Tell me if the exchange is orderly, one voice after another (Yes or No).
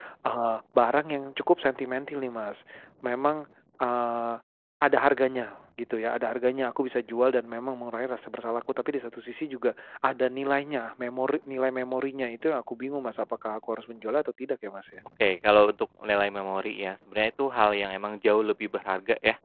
Yes